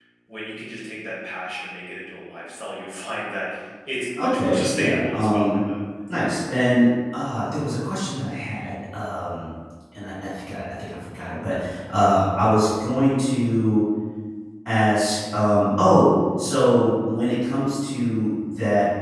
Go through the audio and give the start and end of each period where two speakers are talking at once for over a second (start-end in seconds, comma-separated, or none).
4.2-5.7